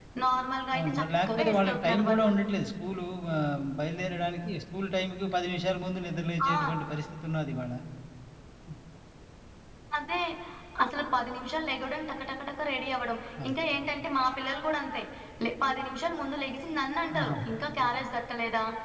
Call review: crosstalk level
present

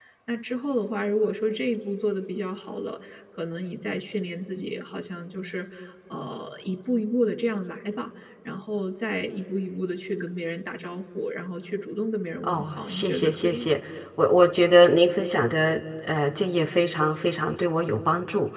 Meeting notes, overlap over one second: present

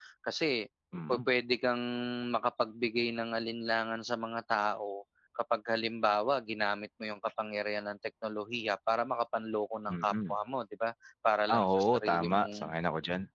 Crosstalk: present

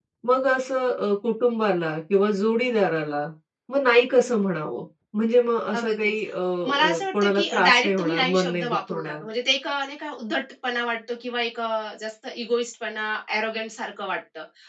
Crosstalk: present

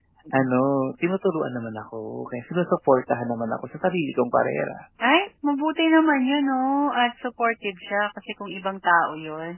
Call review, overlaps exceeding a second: none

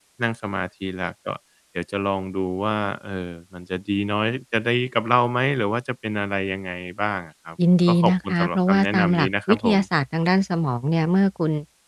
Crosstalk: present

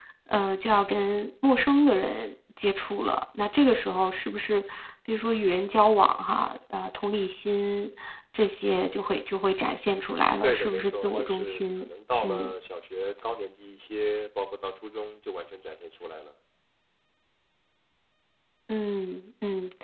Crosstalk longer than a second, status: present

